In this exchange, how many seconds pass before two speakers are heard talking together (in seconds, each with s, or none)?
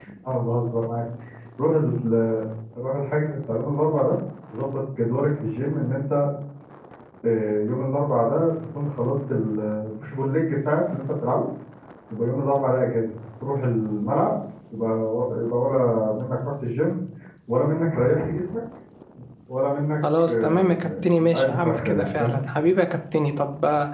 20.3 s